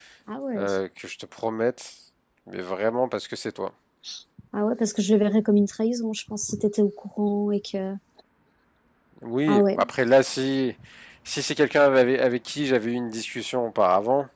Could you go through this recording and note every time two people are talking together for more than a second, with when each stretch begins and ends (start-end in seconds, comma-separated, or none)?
none